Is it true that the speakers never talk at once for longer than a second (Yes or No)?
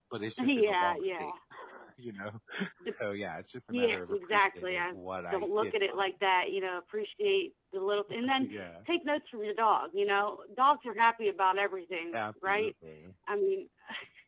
No